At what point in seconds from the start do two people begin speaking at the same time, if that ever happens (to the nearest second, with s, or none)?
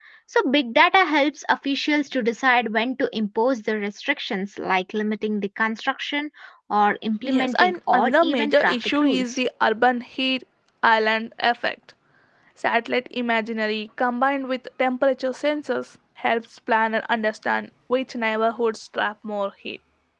7 s